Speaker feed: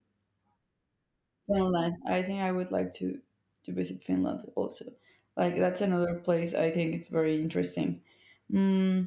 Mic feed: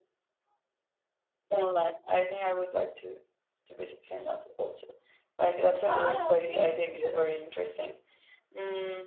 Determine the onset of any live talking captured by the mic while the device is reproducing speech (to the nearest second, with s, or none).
6 s